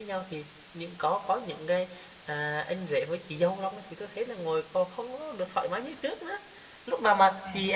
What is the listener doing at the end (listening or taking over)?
listening